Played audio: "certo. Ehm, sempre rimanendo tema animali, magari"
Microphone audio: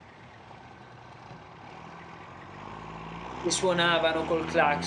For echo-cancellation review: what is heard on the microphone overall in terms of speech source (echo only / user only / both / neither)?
user only